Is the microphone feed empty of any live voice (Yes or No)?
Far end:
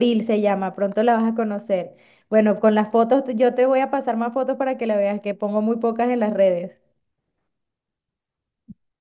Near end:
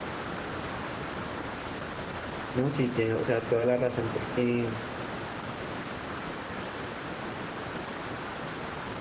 No